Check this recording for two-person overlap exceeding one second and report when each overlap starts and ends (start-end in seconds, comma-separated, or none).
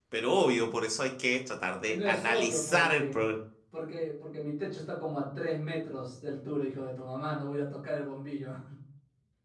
1.8-3.2